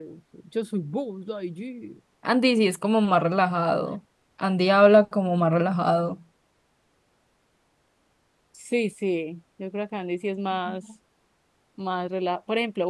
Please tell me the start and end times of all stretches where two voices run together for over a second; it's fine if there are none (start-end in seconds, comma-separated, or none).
none